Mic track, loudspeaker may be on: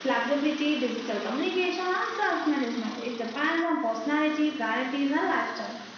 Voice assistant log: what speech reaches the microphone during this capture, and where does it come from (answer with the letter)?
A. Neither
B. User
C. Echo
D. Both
C